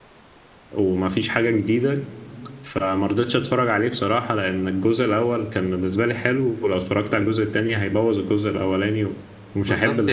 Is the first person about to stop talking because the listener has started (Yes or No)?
Yes